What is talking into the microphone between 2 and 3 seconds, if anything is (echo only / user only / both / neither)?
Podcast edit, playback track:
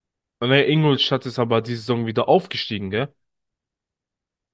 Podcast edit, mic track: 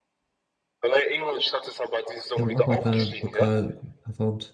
both